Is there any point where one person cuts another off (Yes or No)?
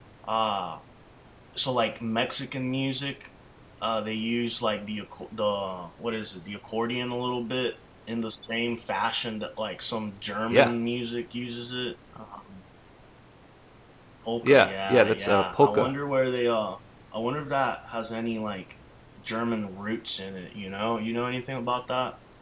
Yes